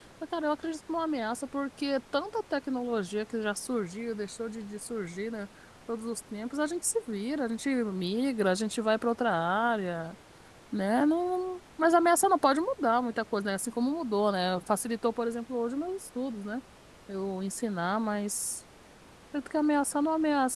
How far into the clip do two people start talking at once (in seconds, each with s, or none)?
none